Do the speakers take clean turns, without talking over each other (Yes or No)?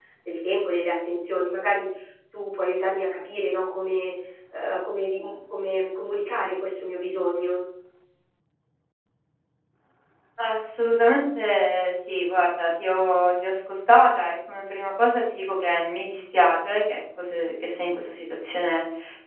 Yes